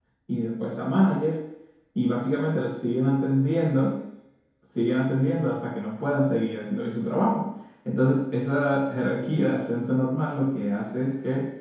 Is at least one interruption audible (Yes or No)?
No